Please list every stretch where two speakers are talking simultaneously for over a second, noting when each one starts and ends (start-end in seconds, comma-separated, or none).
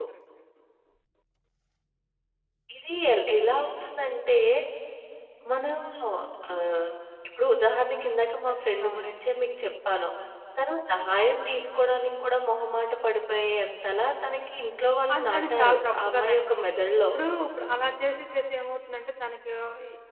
15.1-16.6